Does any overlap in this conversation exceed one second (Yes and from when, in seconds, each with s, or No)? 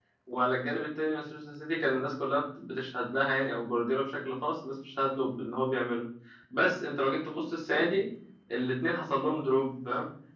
No